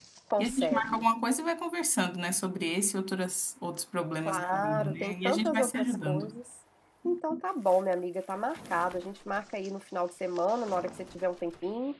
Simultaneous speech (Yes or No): Yes